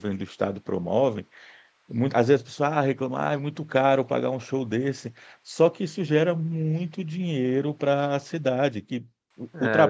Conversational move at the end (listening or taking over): listening